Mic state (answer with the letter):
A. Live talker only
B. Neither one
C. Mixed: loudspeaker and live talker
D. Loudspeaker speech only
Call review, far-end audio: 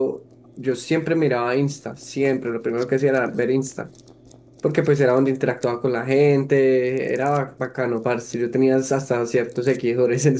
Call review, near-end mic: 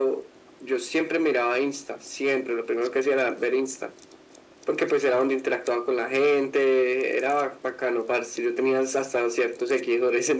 D